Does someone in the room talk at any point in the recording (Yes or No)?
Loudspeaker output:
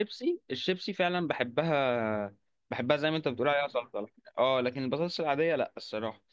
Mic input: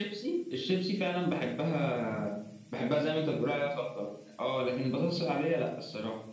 No